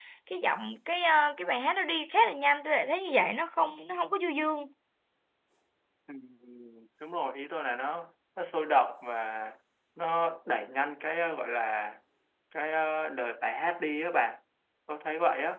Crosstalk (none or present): none